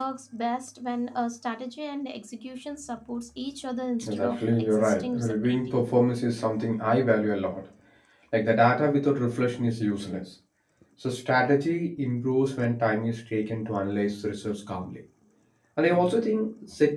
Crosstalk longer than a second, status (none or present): present